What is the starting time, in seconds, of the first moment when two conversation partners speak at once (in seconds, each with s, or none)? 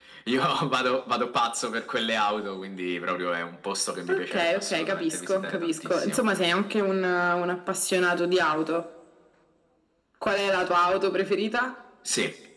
4.1 s